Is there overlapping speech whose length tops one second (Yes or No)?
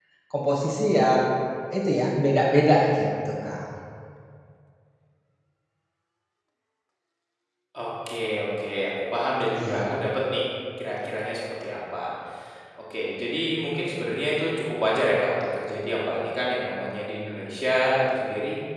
No